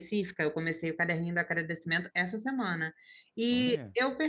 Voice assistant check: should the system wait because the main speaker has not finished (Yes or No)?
Yes